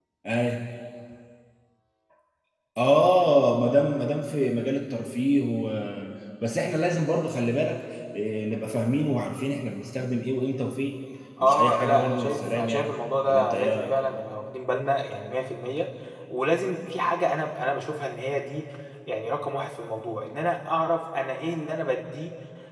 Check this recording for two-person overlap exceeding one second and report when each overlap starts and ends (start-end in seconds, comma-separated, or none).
11.4-14.0